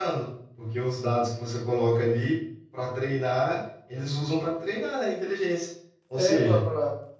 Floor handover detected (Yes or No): Yes